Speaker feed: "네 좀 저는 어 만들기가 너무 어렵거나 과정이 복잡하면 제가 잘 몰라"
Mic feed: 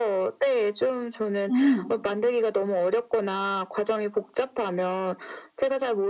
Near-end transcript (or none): 음.